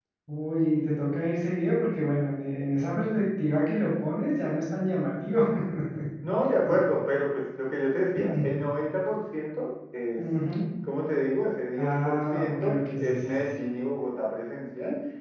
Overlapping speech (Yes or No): Yes